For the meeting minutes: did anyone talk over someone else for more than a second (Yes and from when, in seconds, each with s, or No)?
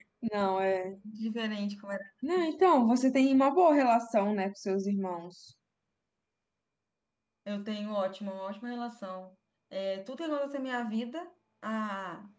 No